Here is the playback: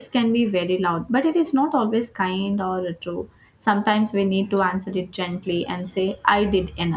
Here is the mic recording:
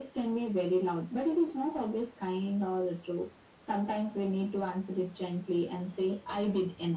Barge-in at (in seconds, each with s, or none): none